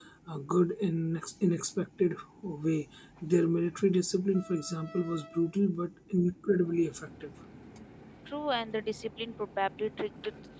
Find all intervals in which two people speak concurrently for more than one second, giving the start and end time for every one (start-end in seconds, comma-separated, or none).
none